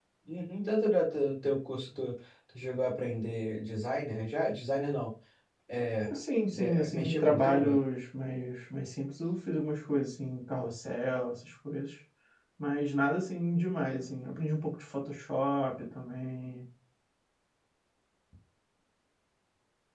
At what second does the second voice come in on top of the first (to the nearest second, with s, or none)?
7 s